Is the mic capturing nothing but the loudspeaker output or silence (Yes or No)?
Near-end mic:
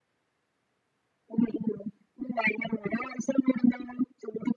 Yes